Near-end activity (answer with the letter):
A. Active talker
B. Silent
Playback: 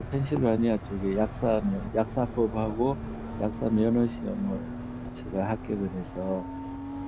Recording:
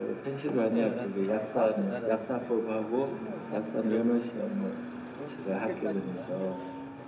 A